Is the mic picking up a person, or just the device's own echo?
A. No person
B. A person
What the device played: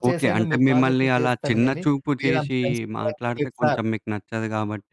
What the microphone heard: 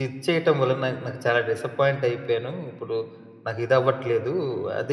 B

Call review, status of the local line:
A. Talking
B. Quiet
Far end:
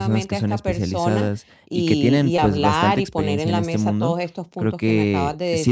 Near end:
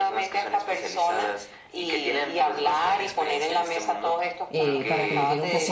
A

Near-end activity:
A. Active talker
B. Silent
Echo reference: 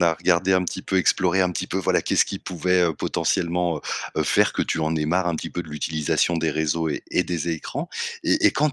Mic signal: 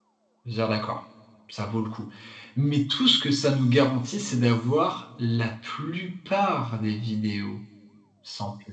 A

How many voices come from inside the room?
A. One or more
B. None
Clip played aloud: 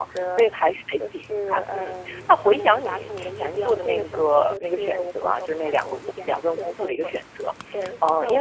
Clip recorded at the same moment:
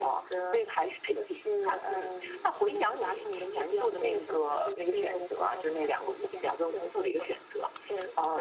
B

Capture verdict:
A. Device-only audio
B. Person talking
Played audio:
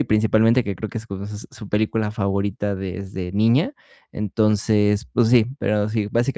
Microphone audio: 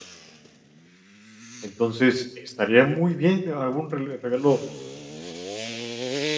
B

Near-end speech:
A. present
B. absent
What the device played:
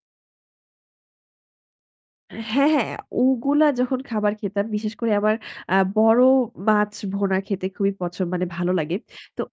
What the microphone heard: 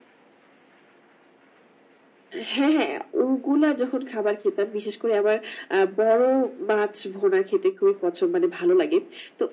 B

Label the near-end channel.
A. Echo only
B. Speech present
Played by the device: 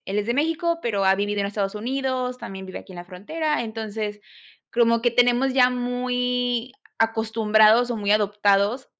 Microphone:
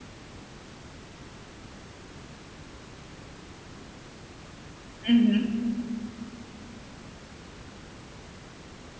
B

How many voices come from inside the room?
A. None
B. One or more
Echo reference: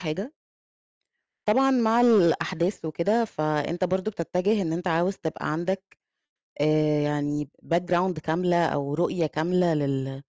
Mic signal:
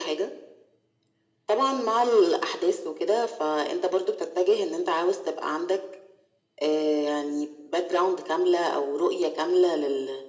A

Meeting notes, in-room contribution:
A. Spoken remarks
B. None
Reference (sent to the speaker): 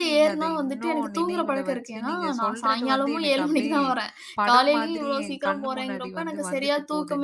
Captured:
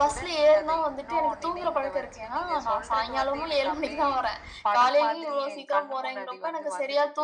B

